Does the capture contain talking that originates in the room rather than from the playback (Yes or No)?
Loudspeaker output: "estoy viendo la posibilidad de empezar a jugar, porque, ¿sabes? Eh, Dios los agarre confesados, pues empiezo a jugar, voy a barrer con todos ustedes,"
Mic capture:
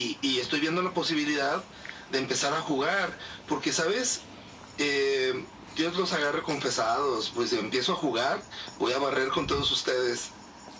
No